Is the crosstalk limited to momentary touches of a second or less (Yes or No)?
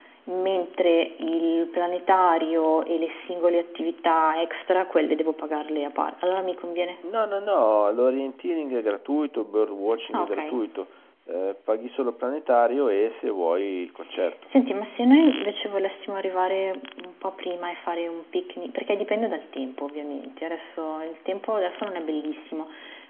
Yes